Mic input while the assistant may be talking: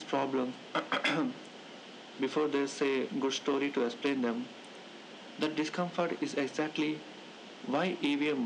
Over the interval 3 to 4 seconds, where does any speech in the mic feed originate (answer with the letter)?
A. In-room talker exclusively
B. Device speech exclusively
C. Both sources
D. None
B